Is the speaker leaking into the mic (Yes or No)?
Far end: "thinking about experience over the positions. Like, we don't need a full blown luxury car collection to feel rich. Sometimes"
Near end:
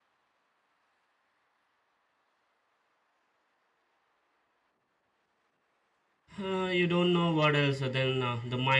No